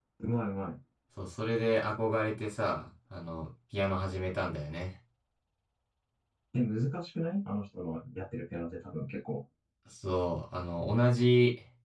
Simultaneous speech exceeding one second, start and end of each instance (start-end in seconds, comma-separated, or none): none